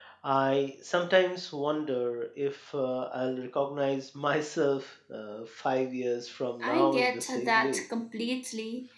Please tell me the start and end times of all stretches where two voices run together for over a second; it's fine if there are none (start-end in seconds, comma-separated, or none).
6.6-7.8